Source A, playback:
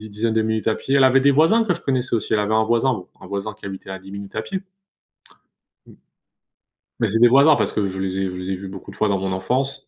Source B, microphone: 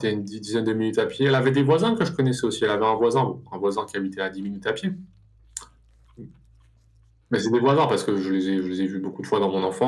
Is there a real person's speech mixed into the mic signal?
No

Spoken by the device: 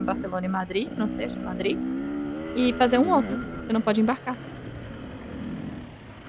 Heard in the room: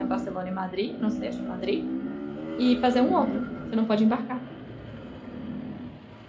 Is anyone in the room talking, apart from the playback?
No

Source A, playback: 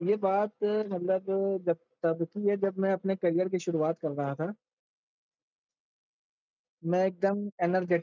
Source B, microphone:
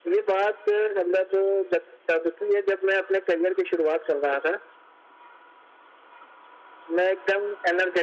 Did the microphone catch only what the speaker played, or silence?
Yes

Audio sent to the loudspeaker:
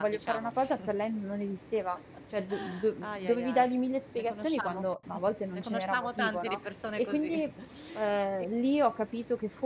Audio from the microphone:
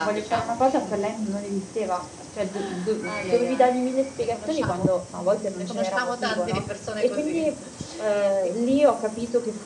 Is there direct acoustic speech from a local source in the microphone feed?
No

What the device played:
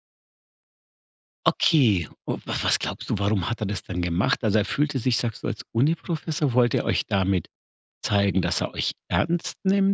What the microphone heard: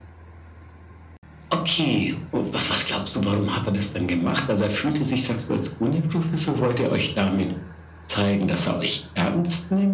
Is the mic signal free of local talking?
Yes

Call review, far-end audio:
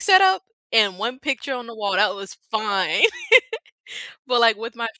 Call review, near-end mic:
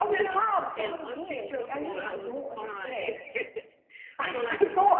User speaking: Yes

